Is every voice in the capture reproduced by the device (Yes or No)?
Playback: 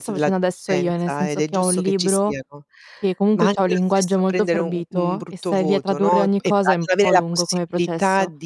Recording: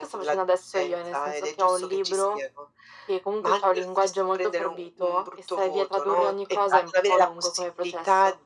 Yes